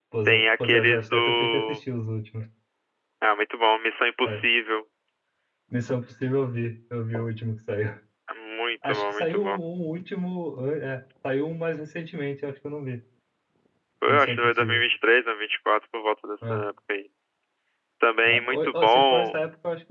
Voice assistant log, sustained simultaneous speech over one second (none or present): present